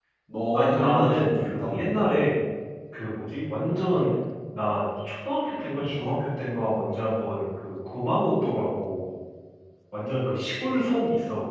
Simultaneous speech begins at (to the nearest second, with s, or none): 1 s